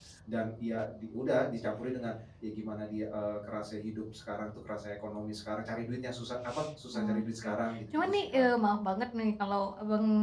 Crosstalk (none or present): present